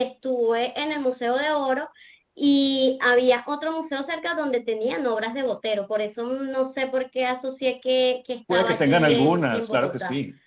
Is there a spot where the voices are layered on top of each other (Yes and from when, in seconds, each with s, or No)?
Yes, from 8.5 s